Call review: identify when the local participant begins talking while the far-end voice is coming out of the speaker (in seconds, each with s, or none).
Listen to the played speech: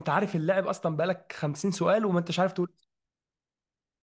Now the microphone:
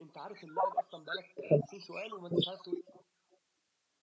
none